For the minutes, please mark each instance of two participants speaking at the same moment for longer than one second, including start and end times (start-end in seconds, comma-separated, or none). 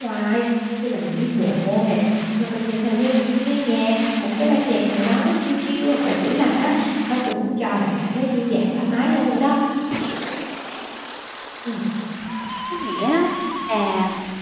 none